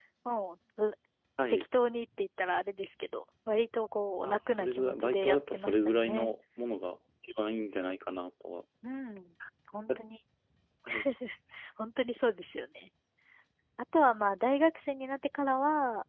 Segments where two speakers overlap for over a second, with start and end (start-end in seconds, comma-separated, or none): 4.2-6.3